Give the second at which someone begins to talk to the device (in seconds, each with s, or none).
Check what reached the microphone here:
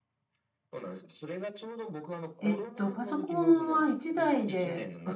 2.4 s